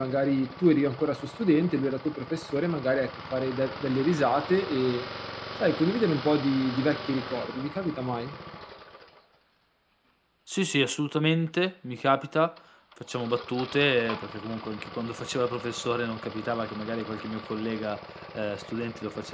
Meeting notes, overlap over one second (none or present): none